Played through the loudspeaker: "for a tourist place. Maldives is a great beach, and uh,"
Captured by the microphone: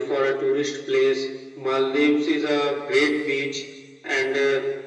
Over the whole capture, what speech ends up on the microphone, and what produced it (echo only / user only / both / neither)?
echo only